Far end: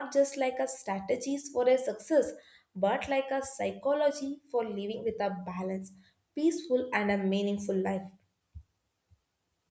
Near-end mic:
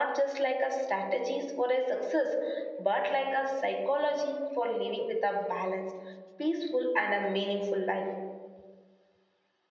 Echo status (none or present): present